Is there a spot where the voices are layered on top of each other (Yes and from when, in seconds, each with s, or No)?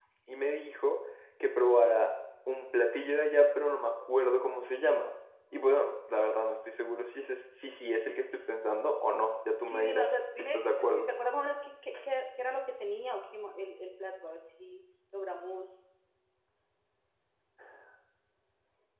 Yes, from 9.7 s